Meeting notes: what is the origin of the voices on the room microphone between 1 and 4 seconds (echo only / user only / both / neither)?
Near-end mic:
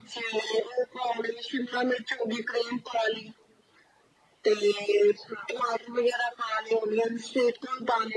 echo only